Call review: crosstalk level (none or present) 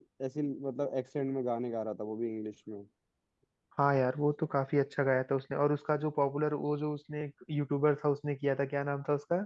none